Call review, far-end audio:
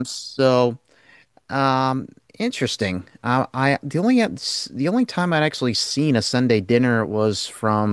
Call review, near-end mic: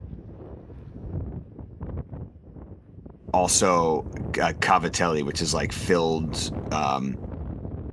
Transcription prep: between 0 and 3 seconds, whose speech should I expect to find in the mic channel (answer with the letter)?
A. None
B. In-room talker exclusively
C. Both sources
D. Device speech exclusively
A